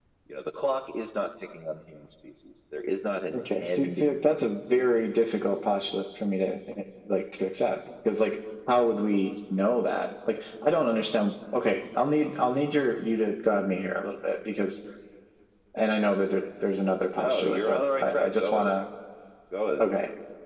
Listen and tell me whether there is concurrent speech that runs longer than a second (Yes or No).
Yes